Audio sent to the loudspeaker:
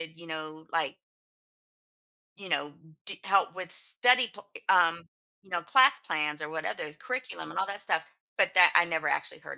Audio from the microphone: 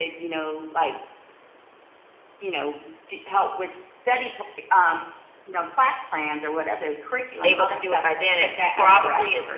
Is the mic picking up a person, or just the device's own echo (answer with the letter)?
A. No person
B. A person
B